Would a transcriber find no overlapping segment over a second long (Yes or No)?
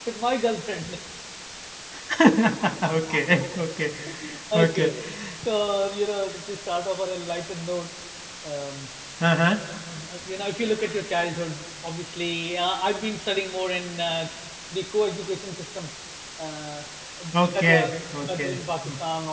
No